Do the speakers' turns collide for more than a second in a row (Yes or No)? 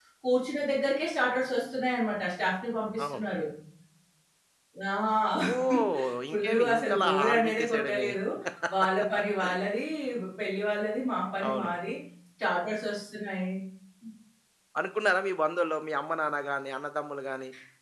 Yes